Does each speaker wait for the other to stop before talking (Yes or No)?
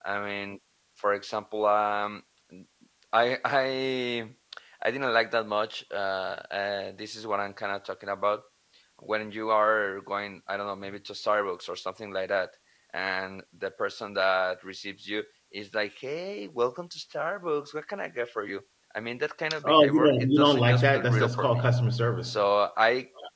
No